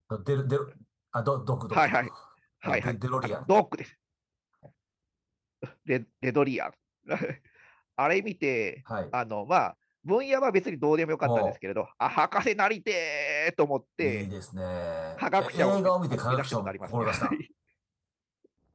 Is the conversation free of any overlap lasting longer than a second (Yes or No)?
No